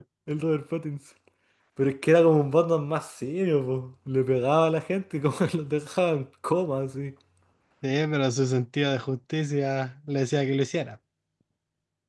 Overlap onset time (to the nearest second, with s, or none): none